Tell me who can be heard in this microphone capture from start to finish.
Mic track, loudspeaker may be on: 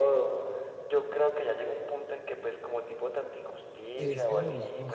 both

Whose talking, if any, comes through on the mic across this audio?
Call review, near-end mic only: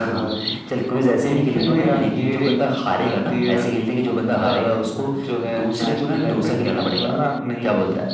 echo only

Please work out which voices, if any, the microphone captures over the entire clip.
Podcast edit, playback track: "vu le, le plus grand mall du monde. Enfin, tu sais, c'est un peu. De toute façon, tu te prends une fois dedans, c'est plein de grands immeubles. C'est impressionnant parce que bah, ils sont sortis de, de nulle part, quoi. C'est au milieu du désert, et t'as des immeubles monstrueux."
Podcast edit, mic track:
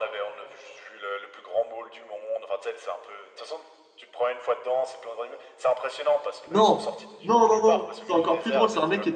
both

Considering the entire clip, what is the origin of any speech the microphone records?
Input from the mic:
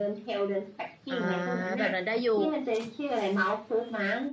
both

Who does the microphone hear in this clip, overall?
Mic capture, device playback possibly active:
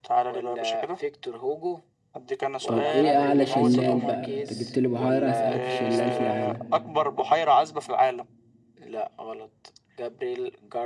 both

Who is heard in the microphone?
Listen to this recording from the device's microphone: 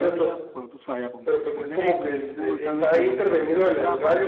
both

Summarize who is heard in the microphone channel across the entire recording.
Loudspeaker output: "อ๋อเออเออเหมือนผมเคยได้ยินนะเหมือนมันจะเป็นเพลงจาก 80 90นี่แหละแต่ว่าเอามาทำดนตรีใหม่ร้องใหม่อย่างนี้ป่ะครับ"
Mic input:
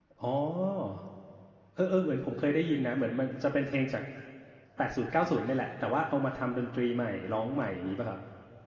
echo only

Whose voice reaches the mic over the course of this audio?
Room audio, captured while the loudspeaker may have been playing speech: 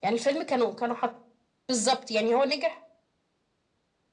echo only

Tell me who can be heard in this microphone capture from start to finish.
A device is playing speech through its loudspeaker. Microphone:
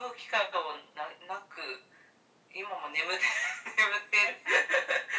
echo only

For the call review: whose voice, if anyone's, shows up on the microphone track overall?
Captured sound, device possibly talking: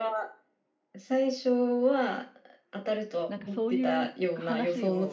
both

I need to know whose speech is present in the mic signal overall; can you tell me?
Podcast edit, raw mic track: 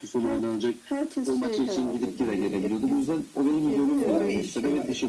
both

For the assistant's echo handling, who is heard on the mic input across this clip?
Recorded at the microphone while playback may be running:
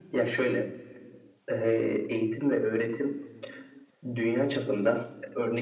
echo only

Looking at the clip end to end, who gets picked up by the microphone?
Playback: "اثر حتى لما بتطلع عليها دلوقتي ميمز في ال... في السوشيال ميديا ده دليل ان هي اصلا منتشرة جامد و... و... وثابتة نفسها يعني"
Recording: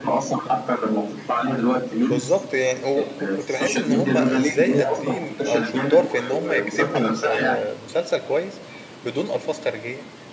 both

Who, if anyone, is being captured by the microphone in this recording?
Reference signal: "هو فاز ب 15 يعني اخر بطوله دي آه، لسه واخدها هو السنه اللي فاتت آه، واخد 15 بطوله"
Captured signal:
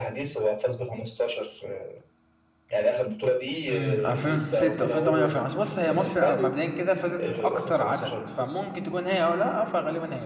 both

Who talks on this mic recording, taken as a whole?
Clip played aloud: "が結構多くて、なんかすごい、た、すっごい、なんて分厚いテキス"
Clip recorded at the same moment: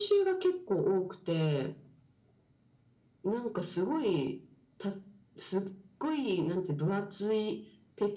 echo only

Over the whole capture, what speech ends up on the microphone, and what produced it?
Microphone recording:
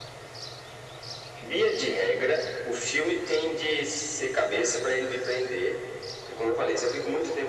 echo only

